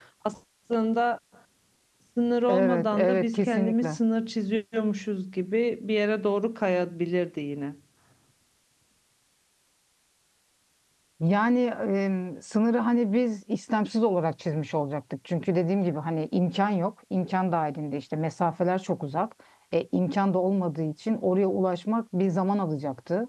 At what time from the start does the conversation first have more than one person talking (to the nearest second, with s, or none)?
2 s